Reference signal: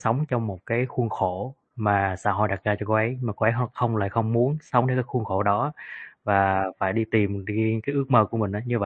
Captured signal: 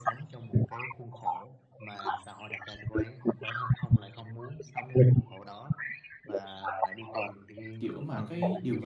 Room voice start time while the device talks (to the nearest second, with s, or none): 8 s